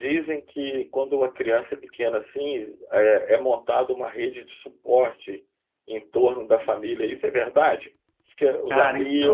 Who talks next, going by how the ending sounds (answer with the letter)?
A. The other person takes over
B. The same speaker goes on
B